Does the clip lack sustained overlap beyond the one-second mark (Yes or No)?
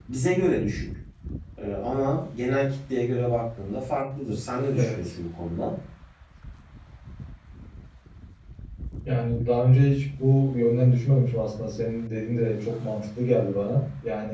Yes